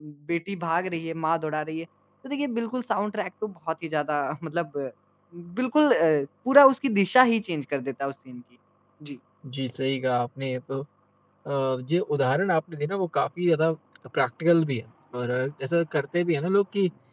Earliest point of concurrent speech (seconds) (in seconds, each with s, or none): none